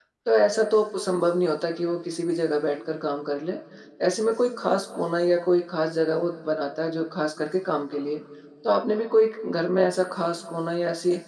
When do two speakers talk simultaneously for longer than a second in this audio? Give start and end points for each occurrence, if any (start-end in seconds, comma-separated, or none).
none